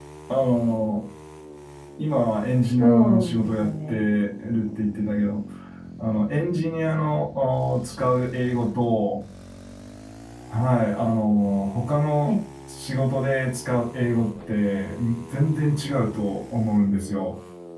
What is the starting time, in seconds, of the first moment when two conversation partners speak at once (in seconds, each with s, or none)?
2.8 s